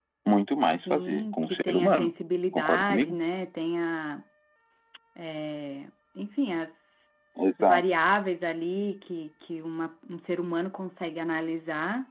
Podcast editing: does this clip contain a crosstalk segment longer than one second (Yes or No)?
Yes